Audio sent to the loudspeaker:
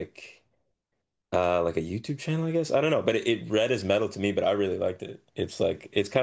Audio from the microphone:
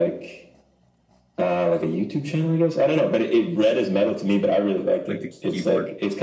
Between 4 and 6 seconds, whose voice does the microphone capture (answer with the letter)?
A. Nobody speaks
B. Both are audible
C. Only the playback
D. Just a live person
B